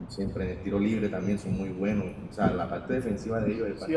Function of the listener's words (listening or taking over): taking over